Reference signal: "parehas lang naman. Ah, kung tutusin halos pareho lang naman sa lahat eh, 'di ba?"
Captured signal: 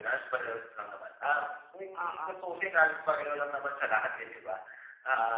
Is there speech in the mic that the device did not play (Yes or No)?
Yes